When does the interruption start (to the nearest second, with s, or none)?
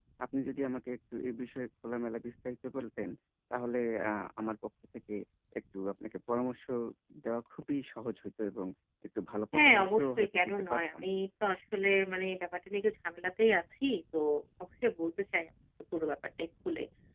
10 s